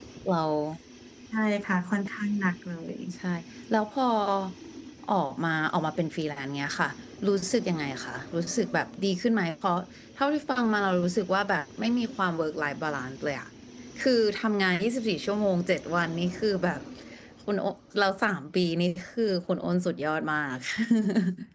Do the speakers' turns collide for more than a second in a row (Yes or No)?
No